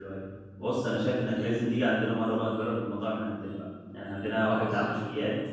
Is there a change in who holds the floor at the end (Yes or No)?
No